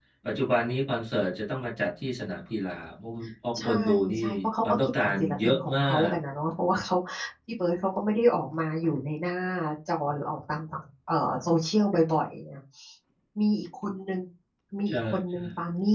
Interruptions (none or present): present